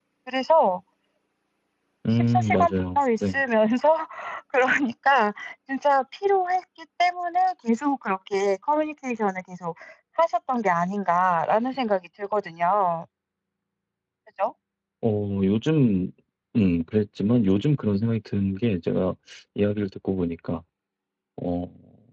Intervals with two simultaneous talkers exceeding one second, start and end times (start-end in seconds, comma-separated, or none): 2.1-3.4